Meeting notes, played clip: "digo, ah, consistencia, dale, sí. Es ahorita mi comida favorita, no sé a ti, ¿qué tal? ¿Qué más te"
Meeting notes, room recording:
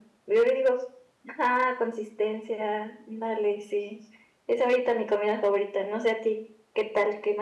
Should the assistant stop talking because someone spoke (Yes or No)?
No